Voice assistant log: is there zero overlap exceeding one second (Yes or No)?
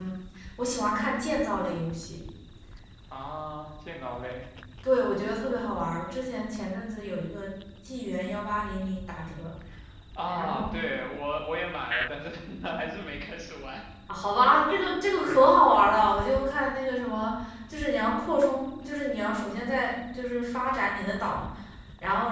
Yes